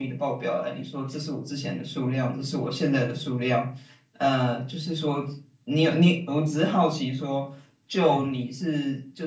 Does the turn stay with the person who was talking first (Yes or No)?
Yes